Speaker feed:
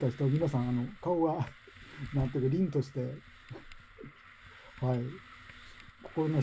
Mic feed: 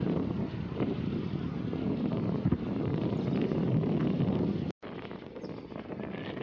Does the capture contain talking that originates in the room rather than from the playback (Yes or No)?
No